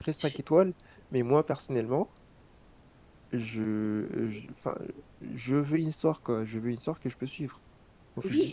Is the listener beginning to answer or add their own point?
Yes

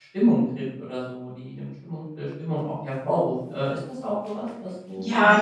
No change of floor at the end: No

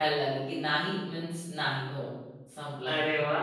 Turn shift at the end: Yes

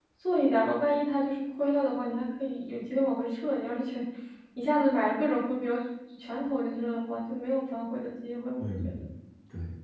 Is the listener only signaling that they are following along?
No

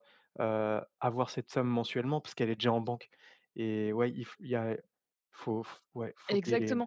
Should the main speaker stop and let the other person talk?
Yes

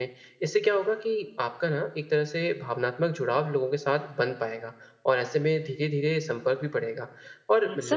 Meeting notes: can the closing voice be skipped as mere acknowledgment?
Yes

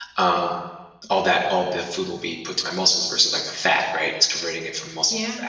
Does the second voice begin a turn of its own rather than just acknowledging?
No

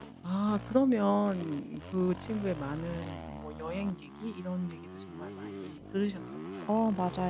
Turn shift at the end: Yes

